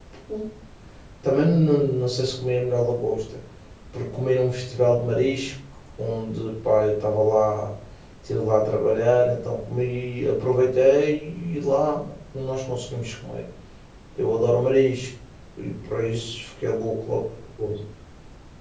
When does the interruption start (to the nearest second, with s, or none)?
none